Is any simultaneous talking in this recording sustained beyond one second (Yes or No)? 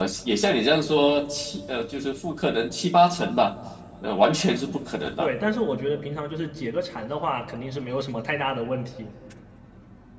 No